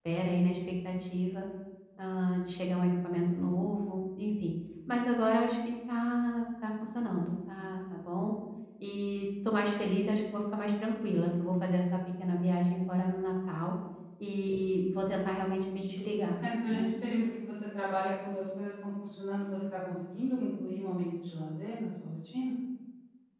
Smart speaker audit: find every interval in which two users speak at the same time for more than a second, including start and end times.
none

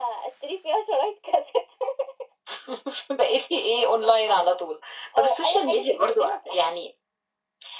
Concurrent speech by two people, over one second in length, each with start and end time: 5.2-6.5

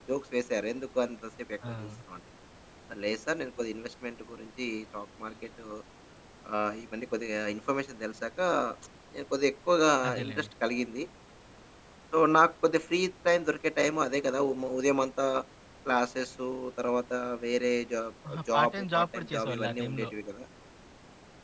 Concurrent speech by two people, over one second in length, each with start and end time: 18.3-20.1

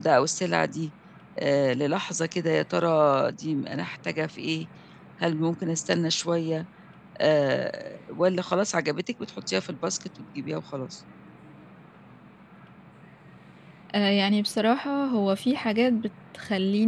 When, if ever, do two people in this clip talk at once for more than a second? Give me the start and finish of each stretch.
none

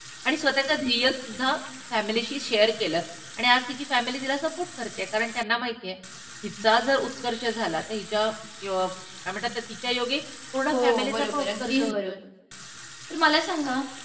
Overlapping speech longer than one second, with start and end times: 10.7-12.1

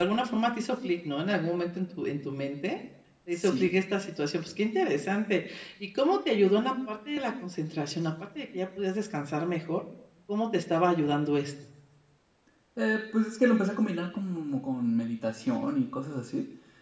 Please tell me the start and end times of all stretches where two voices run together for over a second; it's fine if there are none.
none

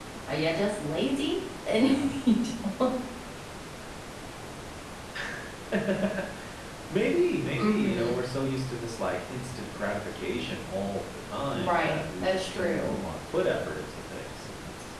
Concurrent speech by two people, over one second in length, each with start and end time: 11.5-13.0

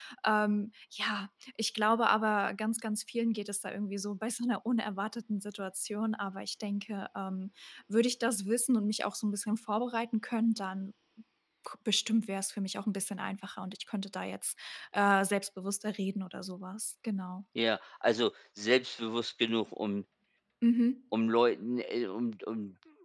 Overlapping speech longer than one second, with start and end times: none

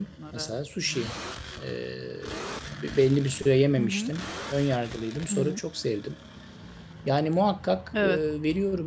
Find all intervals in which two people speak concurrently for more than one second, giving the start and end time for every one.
none

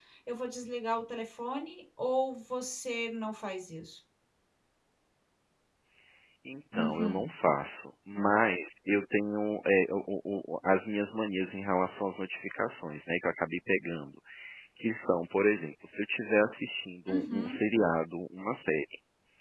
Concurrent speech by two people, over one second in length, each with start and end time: none

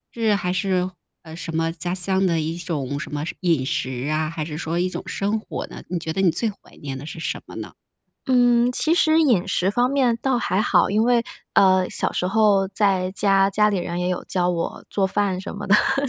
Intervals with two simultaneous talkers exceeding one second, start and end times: none

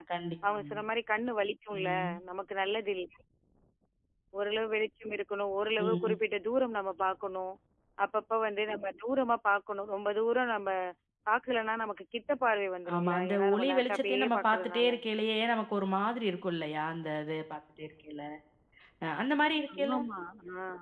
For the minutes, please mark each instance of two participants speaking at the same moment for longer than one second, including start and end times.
12.9-14.9

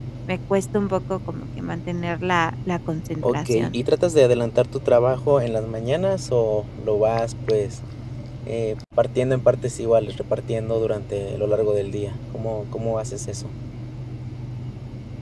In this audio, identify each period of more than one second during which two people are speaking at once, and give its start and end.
none

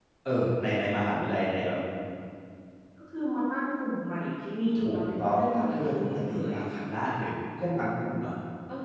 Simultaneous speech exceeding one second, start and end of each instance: 4.8-6.5

